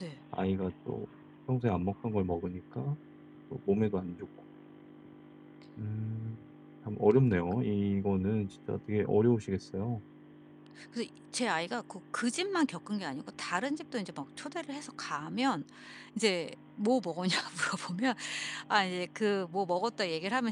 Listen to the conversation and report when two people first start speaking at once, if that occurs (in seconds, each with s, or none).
none